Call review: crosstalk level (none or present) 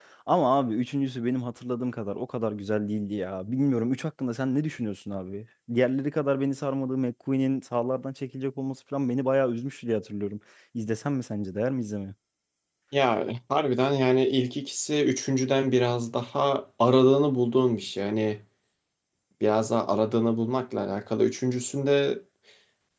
none